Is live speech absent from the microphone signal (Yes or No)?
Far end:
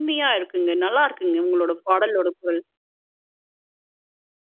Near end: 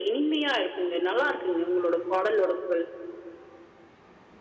Yes